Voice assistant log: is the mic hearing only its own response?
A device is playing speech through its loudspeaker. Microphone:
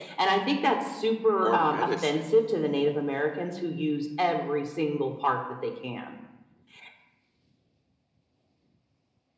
No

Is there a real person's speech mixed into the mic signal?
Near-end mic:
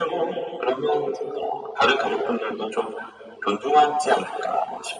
No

